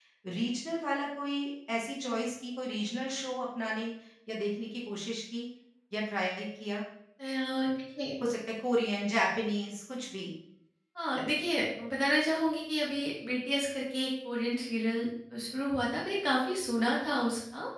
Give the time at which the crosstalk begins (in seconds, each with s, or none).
none